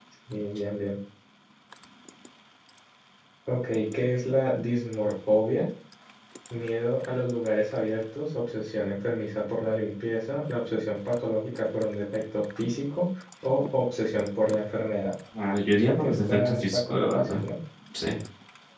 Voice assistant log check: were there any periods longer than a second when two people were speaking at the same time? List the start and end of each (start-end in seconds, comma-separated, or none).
15.8-17.4